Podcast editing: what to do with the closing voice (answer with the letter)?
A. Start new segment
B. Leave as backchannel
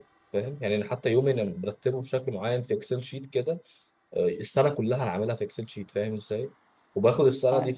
B